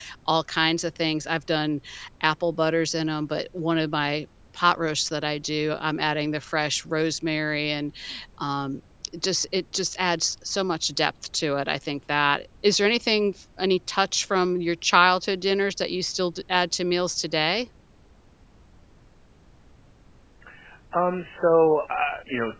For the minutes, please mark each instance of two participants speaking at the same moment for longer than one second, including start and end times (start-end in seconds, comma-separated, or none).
none